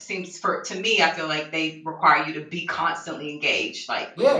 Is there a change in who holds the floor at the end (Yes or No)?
Yes